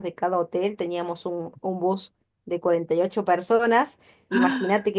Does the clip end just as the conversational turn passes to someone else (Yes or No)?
No